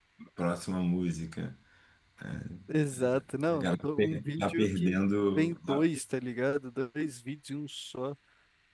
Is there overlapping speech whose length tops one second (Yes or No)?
Yes